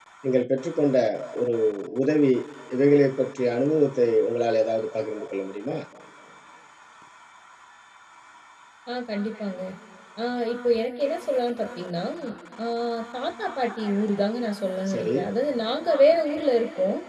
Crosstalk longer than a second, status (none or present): none